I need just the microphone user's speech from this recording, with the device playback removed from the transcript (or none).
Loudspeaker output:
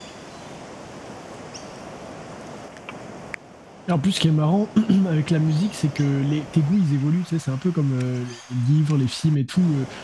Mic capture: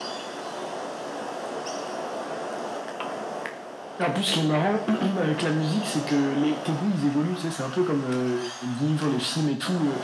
none